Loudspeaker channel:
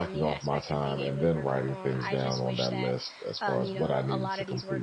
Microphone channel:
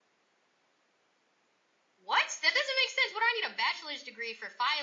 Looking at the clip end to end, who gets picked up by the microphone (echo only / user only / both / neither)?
user only